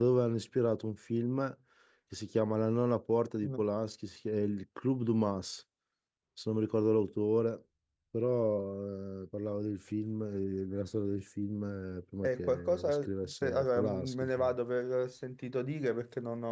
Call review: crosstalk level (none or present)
present